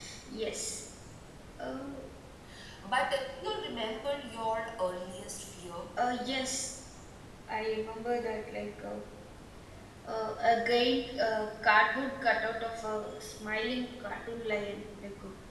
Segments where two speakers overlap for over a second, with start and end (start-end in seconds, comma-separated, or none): none